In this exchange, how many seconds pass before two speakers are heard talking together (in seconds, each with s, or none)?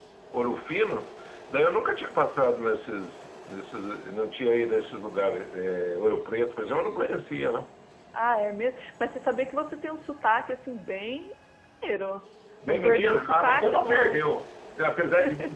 12.7 s